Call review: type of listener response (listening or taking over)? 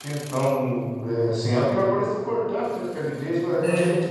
listening